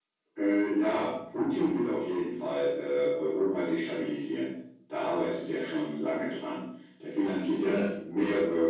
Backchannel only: Yes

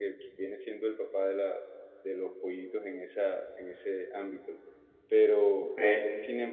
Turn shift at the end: No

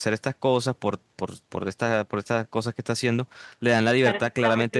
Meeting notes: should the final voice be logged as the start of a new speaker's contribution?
Yes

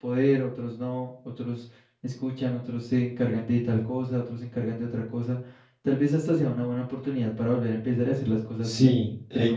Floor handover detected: Yes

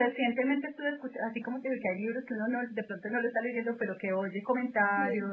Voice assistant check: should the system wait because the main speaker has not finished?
Yes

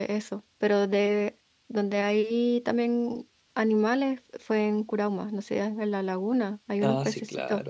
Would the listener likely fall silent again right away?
No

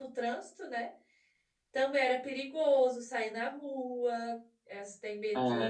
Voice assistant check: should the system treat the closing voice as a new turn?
No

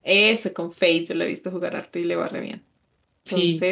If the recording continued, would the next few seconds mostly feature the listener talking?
No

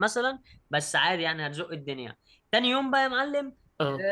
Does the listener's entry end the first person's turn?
No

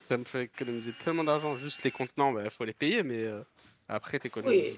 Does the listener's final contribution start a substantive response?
Yes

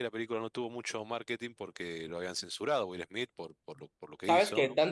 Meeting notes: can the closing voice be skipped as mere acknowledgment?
No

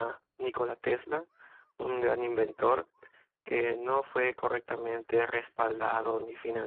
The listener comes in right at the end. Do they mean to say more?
No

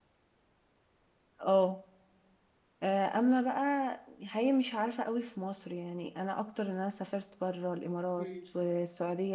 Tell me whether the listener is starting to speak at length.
No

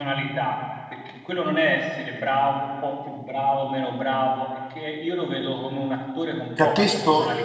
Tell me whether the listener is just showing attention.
No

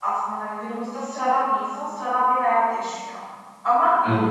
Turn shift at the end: No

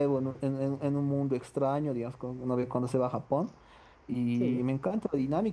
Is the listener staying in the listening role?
Yes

